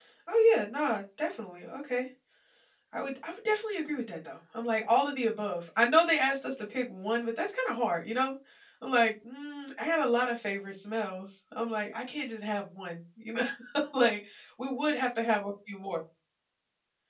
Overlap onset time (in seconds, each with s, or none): none